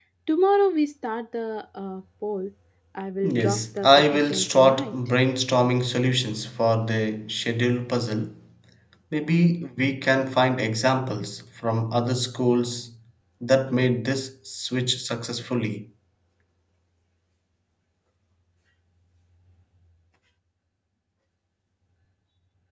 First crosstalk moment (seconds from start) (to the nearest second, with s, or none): 3 s